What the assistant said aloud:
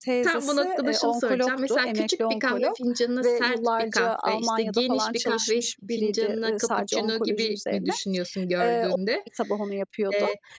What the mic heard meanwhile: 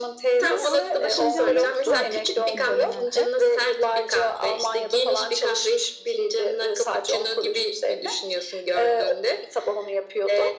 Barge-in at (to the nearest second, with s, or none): 0 s